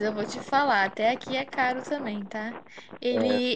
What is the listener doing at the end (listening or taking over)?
listening